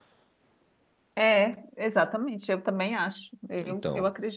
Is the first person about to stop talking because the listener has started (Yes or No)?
No